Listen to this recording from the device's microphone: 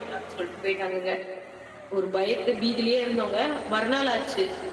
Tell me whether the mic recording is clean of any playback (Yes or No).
No